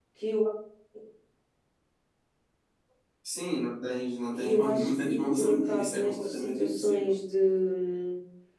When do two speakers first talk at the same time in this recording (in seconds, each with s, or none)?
4.3 s